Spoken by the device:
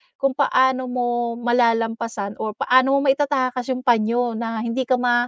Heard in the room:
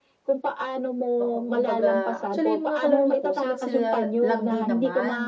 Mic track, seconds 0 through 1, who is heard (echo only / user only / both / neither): echo only